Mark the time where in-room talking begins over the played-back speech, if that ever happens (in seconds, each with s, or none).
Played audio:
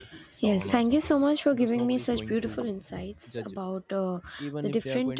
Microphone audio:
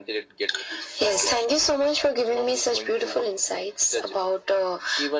none